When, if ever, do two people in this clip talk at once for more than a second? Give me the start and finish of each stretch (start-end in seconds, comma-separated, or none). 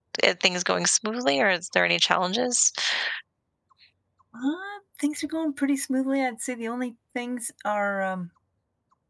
none